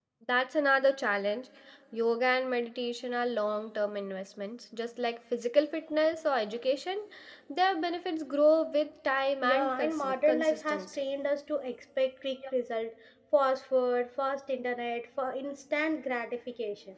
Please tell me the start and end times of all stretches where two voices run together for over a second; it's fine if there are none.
9.4-11.0

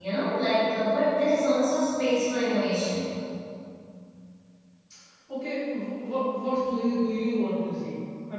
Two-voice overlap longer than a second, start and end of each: none

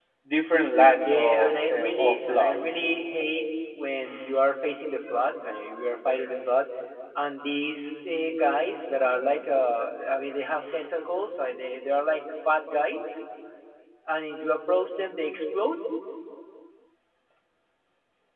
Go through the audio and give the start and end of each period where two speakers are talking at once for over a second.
1.0-2.6

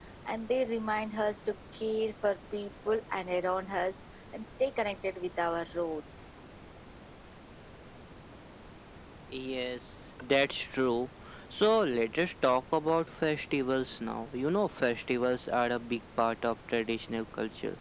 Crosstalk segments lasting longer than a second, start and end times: none

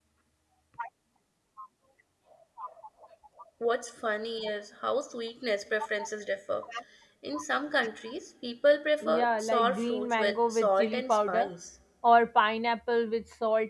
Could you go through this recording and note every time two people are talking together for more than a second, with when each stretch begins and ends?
9.1-11.5

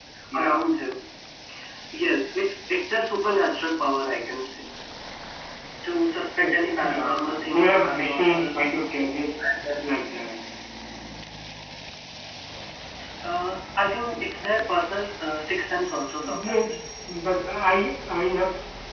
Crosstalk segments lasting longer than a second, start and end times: 7.0-8.6

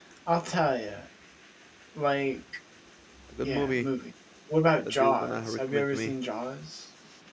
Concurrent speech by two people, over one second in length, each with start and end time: 4.8-6.1

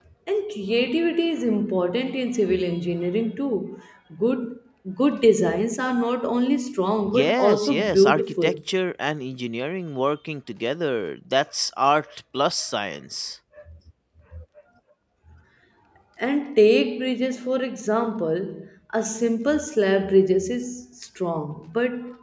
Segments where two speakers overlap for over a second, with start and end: 7.1-8.5

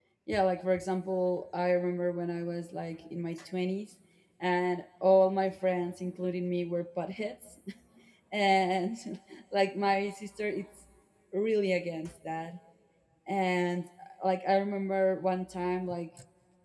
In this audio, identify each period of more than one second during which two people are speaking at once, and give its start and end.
none

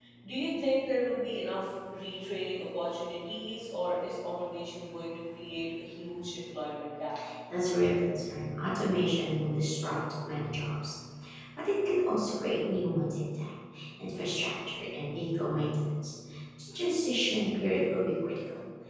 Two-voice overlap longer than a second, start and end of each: none

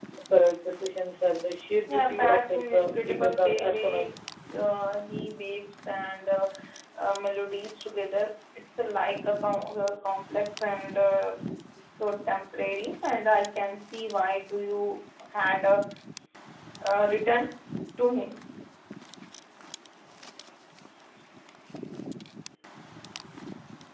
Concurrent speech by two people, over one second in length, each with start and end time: 1.9-4.1

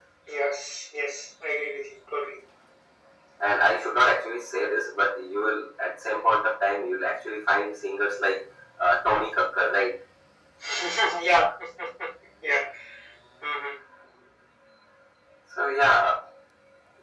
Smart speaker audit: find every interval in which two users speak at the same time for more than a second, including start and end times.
none

